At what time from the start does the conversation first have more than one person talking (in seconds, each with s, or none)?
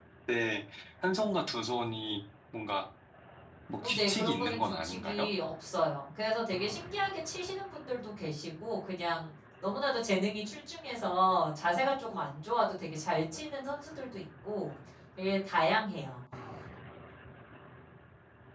3.8 s